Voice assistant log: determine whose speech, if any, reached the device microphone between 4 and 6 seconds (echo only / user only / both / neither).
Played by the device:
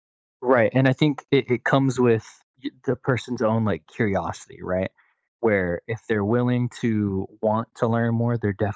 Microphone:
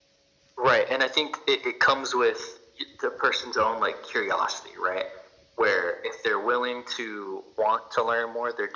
echo only